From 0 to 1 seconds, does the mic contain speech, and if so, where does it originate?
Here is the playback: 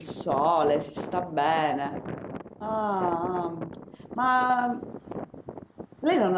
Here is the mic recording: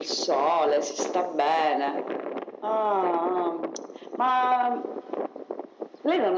echo only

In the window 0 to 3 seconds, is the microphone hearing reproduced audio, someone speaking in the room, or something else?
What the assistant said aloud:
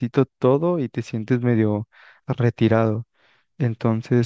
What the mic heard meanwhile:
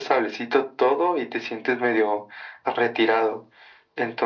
echo only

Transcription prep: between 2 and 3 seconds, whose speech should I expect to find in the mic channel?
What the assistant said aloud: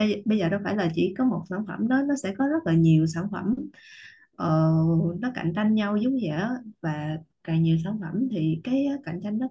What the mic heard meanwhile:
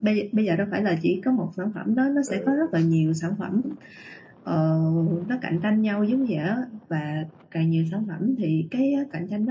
both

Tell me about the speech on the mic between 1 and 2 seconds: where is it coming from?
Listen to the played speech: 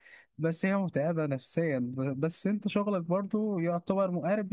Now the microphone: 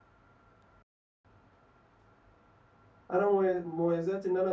neither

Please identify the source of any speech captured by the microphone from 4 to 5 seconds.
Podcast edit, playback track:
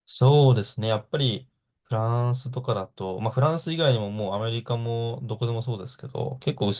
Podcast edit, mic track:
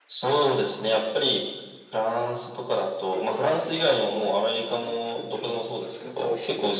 both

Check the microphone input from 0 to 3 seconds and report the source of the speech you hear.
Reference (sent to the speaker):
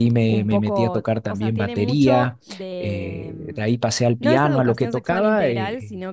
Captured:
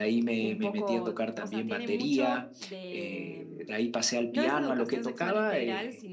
echo only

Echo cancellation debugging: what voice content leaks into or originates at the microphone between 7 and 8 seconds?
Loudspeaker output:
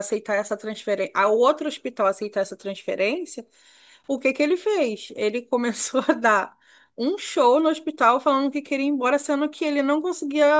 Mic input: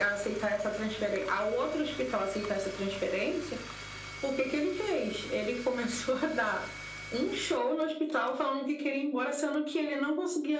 echo only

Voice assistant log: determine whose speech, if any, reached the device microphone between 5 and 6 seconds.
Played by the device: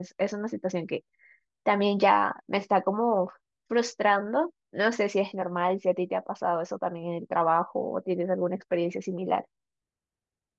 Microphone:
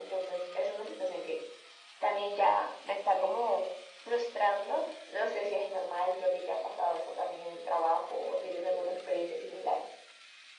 echo only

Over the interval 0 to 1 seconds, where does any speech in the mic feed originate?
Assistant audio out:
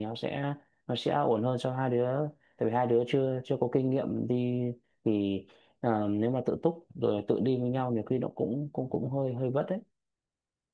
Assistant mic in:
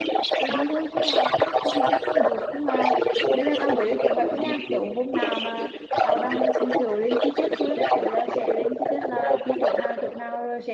both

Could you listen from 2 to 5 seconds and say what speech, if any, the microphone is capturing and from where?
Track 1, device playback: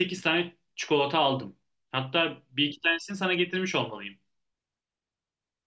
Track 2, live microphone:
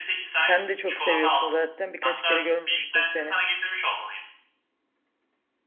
both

